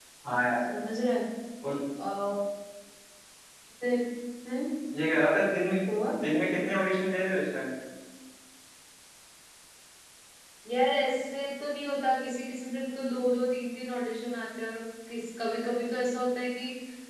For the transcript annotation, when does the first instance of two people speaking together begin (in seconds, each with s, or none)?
none